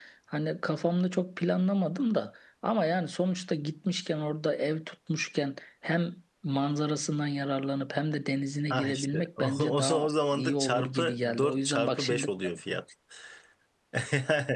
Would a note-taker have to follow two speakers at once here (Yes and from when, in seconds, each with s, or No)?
Yes, from 8.7 s